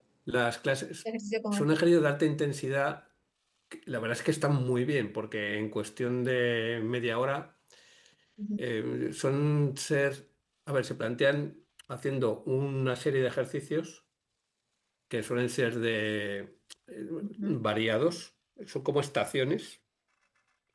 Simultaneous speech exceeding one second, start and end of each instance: none

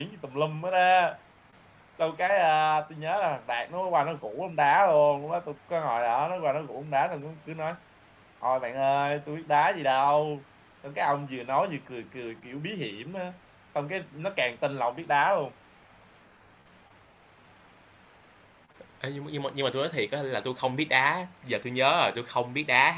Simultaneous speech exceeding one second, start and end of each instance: none

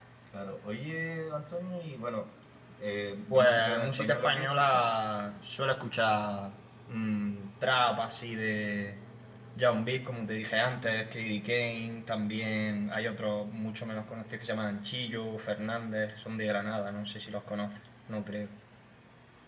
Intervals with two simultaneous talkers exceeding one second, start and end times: 3.3-4.8

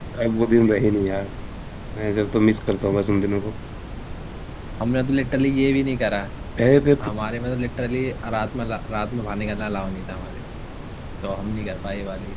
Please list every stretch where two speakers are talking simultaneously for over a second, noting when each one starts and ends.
none

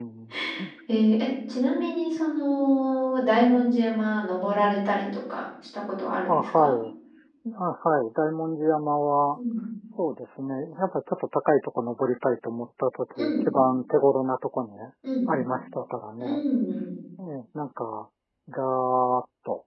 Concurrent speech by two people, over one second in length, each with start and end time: none

